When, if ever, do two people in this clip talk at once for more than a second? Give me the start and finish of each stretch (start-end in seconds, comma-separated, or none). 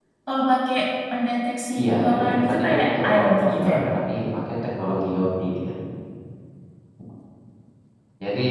1.8-3.8